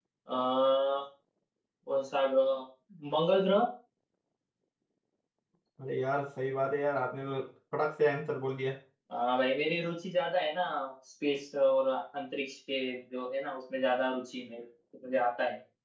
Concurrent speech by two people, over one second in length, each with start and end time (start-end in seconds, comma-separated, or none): none